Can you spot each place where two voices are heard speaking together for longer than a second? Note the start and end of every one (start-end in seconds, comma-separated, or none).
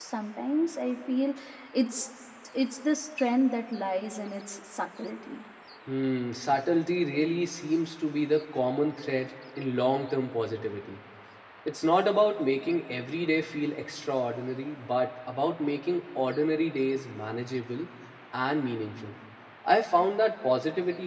none